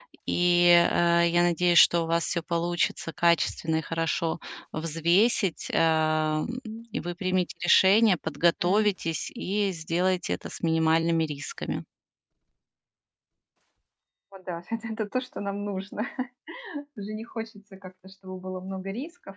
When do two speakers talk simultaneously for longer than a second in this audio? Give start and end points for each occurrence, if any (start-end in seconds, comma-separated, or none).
none